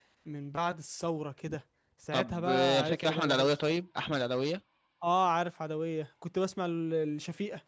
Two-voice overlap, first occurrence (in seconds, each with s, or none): 2.1 s